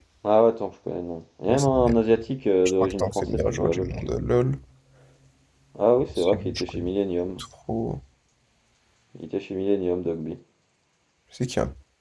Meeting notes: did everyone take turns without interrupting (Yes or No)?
No